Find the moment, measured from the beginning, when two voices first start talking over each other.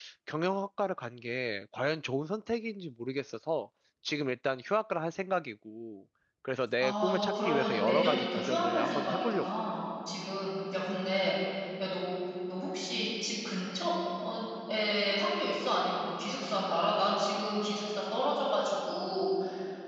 6.8 s

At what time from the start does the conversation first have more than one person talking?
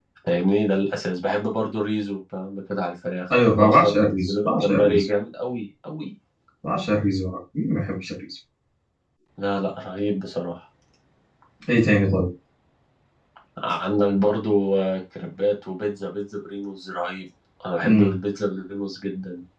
3.6 s

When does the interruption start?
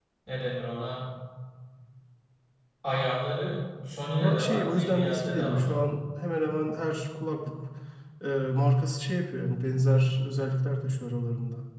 4.2 s

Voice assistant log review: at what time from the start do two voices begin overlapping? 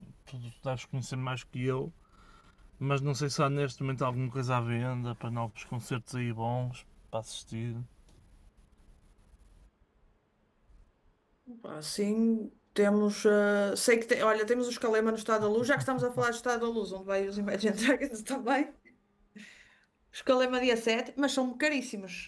none

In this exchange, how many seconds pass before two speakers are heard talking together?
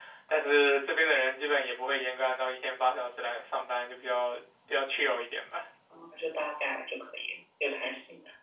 none

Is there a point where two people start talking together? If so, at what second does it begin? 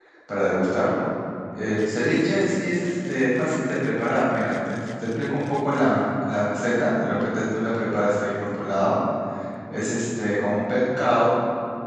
none

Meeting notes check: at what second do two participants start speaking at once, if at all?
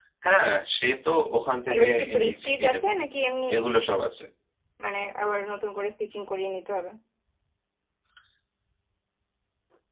1.7 s

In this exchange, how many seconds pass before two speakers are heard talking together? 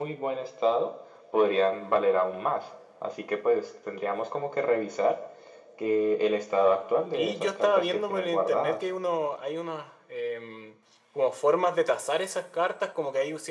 7.1 s

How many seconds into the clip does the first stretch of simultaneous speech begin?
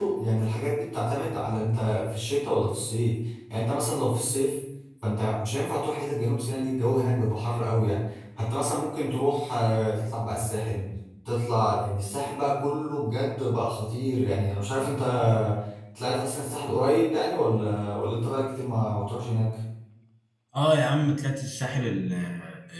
none

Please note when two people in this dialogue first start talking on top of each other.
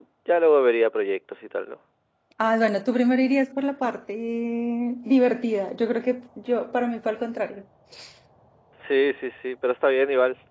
none

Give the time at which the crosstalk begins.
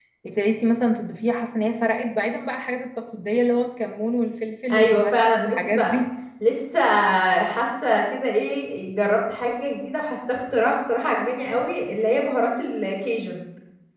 4.7 s

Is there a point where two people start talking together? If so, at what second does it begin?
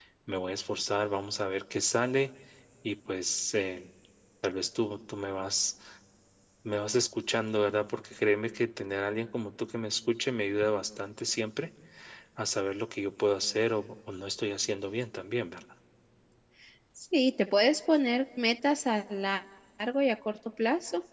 none

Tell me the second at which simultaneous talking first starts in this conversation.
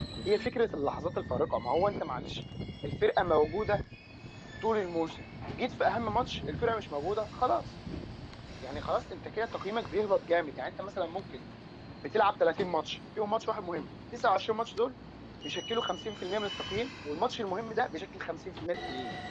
none

